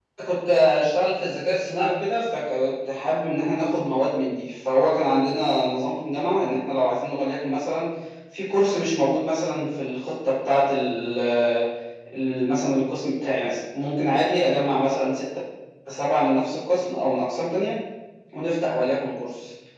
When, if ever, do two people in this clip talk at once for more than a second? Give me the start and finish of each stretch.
none

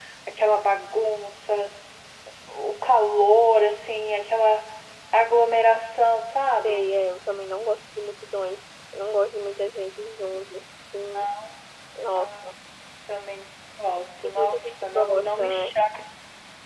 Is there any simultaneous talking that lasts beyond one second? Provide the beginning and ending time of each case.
14.2-15.7

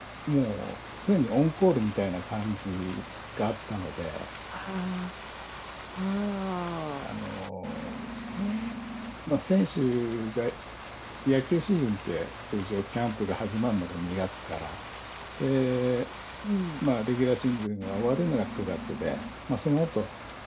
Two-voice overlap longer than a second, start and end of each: none

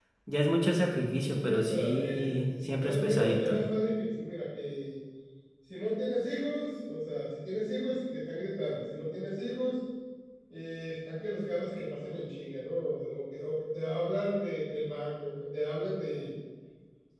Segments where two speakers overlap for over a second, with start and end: 1.3-3.6

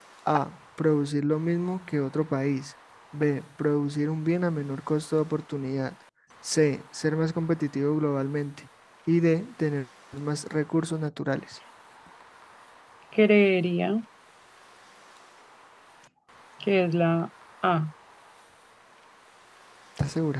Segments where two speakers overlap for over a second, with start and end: none

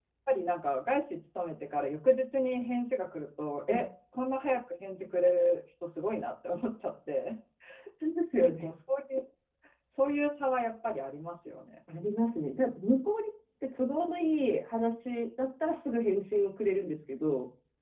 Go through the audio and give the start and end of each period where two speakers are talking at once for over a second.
none

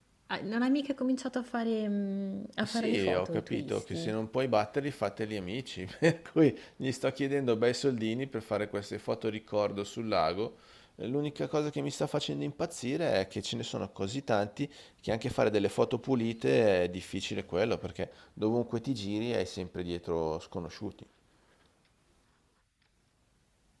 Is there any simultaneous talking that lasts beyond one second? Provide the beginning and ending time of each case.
2.6-4.1

